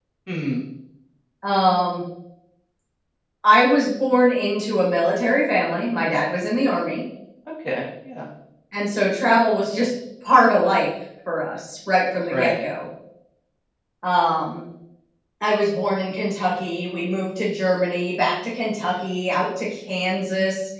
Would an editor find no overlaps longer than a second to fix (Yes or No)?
Yes